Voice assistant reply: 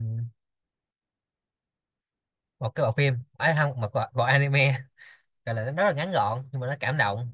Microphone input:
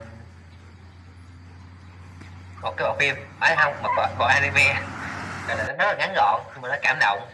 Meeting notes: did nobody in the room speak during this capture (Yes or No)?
Yes